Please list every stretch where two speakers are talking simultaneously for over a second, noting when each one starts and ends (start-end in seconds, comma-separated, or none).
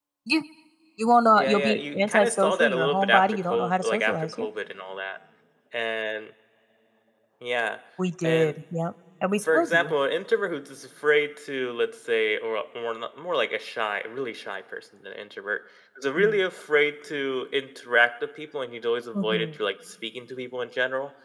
1.4-4.5